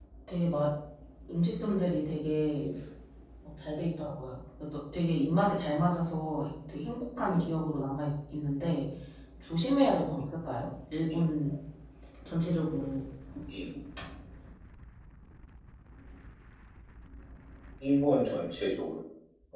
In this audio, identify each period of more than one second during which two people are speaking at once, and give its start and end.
none

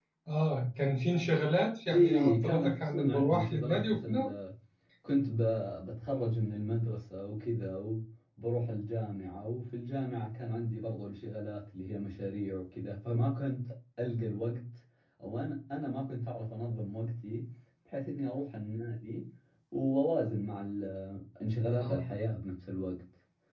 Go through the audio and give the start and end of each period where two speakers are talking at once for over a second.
1.9-4.3

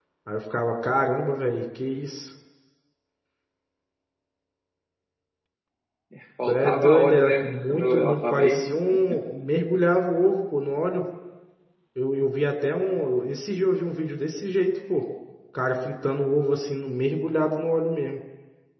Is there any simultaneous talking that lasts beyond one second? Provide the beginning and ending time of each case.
6.5-8.6

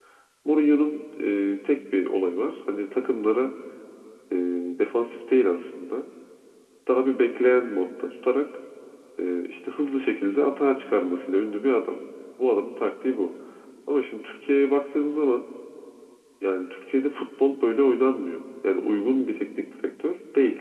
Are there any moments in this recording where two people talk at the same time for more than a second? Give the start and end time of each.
none

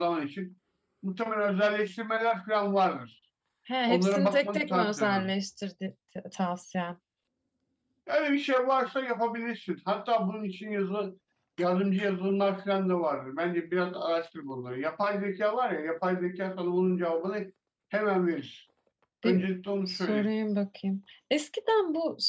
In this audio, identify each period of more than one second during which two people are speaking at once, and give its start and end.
3.9-5.3

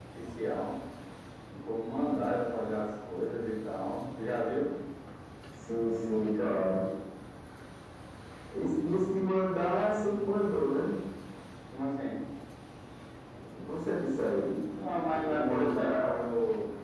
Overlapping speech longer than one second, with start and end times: 14.8-16.2

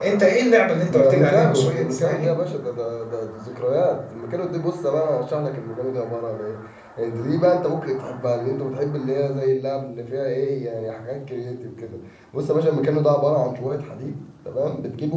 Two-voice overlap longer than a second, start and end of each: 0.9-2.4

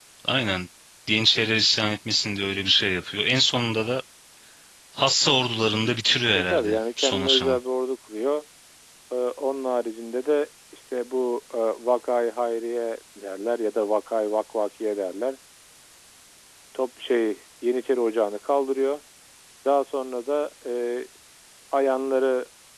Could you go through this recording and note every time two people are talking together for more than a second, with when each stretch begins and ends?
6.3-7.6

